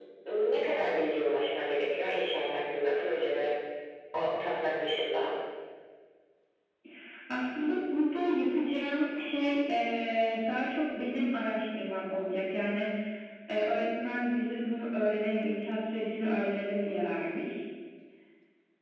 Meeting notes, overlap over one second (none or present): none